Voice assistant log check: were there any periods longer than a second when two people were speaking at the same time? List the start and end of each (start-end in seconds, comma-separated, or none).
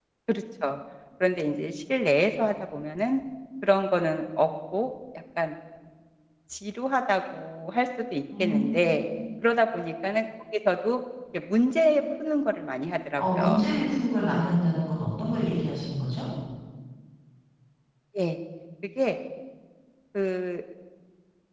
none